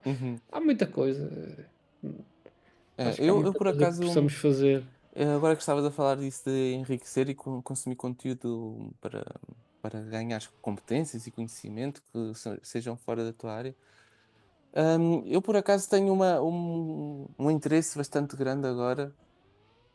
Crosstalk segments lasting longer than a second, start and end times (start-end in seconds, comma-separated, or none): 3.0-4.3